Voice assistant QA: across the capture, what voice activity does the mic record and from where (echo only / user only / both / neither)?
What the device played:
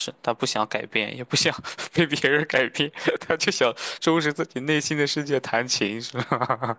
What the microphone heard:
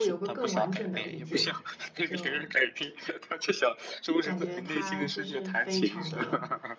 both